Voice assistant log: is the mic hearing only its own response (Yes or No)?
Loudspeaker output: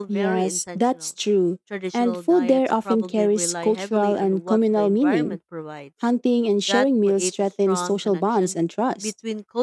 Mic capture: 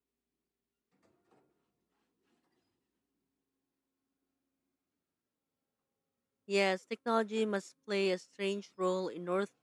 No